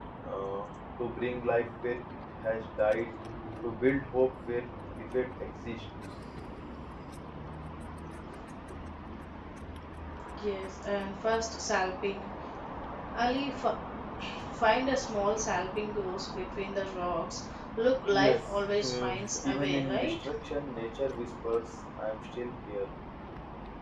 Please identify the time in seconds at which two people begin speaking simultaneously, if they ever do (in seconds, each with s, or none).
18.1 s